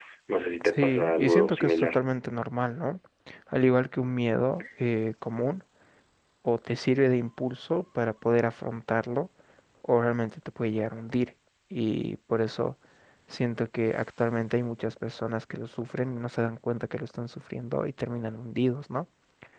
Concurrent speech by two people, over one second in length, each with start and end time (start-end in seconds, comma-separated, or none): 0.7-2.0